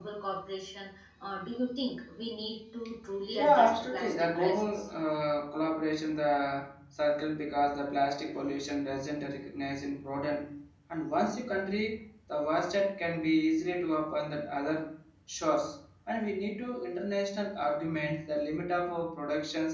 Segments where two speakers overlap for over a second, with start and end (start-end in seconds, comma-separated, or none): 3.4-4.9